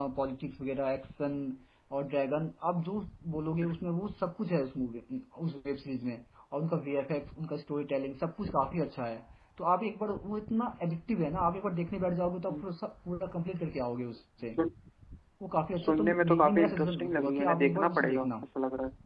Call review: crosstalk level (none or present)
present